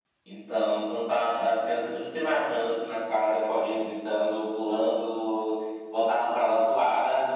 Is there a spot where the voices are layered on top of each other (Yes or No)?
No